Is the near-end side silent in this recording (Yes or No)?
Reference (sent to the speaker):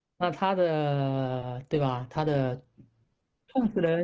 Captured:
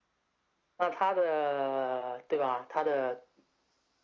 Yes